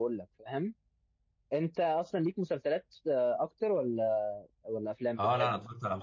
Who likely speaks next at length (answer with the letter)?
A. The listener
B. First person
A